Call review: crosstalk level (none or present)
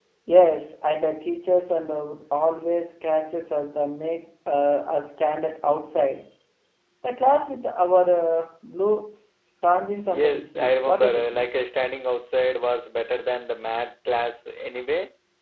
present